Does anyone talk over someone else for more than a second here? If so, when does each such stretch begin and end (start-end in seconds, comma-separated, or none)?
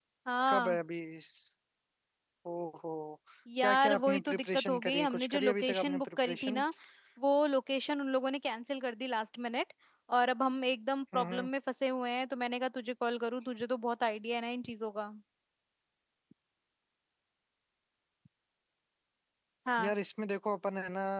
3.6-6.6